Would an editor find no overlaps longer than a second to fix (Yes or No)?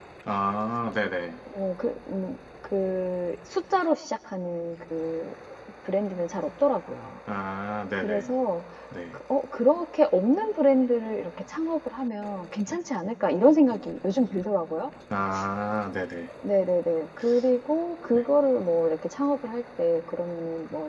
Yes